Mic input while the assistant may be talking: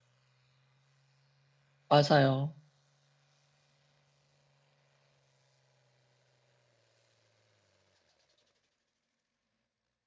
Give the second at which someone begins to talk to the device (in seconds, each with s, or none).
1.9 s